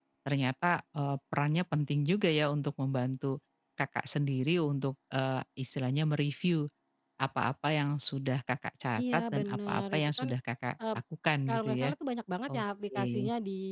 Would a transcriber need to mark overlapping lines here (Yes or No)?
Yes